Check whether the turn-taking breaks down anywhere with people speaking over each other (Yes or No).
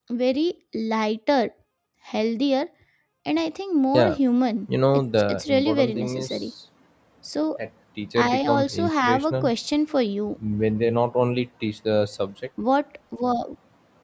Yes